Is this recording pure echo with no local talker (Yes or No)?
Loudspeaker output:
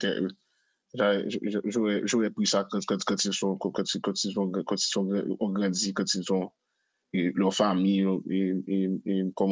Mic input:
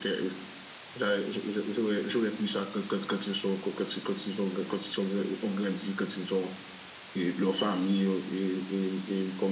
Yes